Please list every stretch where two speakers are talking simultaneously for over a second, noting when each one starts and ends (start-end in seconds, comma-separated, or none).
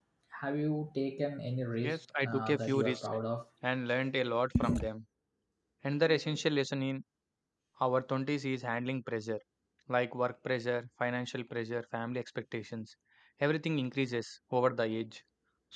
1.8-3.1